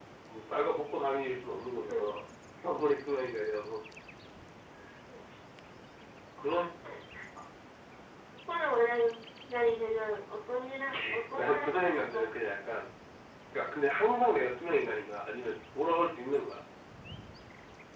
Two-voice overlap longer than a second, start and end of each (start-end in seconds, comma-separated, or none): 10.9-12.3